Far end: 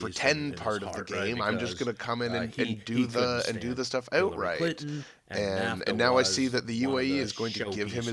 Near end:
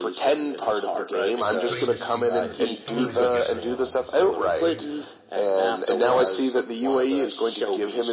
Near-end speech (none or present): present